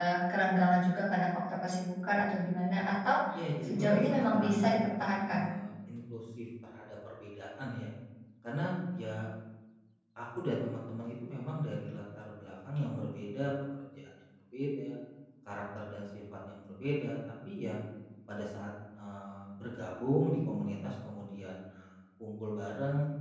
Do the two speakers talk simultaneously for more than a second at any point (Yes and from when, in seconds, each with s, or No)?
Yes, from 3.6 s